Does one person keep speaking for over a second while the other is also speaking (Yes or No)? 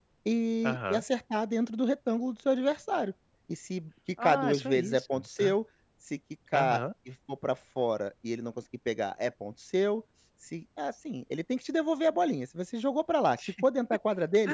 Yes